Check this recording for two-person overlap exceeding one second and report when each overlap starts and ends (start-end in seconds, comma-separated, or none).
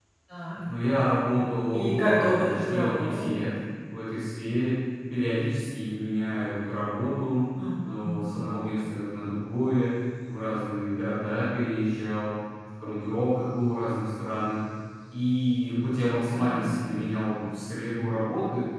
1.8-3.3